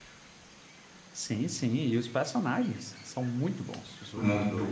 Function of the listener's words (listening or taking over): taking over